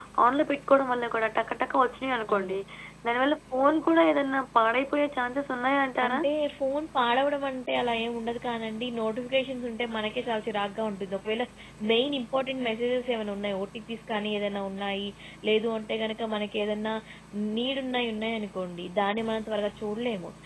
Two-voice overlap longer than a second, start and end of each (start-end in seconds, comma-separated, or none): none